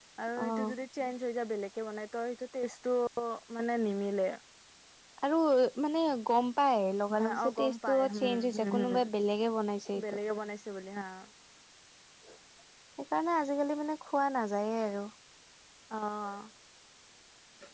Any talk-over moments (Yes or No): Yes